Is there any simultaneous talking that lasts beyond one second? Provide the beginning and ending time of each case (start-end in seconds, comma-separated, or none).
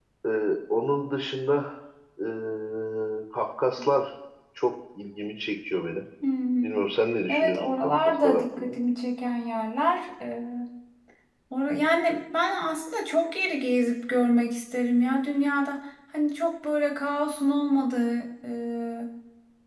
7.3-8.8